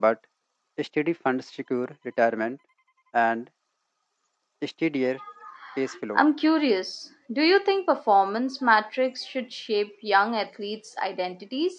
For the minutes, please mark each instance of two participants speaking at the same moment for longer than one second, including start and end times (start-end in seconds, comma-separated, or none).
none